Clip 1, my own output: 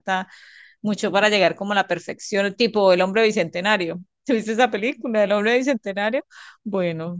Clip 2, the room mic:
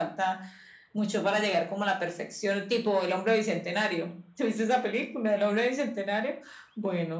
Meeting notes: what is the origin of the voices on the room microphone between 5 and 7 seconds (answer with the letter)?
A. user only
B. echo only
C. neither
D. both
B